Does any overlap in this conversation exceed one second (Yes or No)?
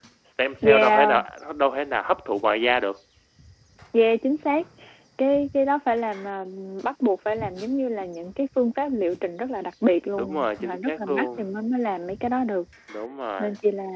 Yes